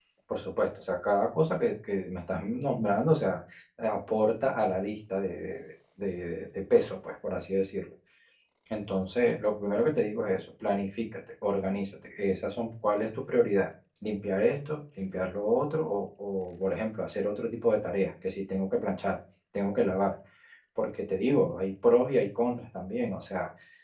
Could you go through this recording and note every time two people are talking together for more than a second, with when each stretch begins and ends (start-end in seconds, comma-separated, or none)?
none